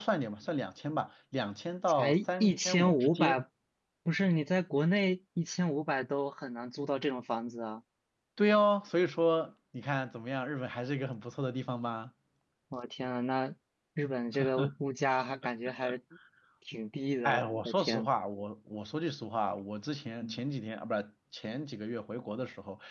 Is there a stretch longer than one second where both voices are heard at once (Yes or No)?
Yes